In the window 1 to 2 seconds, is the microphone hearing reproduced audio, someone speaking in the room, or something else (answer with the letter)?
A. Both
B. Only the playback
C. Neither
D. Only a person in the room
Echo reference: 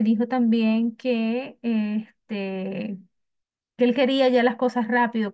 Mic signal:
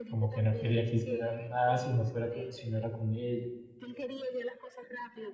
A